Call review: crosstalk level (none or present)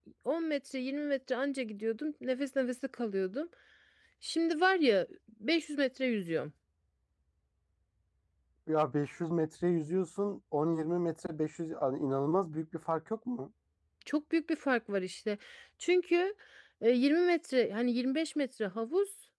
none